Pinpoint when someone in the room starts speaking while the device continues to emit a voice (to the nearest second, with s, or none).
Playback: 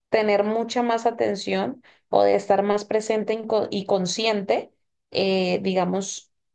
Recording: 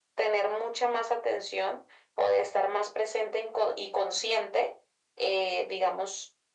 none